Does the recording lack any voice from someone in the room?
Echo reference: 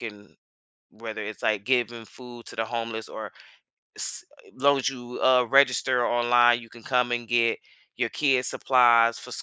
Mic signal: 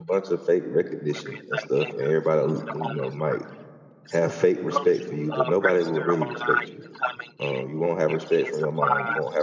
No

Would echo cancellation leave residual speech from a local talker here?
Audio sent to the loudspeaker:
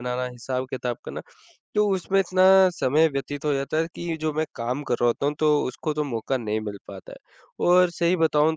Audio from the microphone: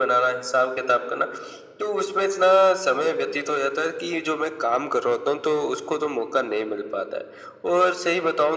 No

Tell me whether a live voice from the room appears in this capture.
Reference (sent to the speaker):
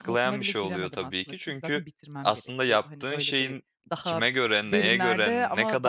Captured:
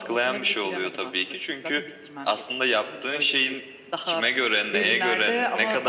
No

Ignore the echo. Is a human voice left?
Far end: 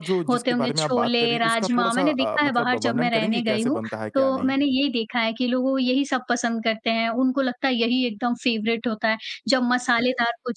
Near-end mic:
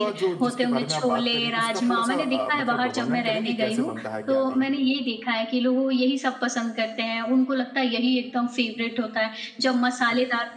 No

